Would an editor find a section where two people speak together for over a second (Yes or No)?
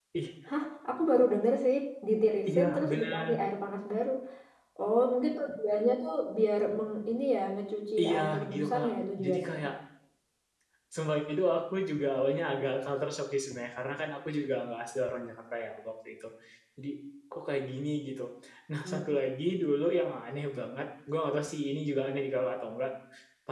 Yes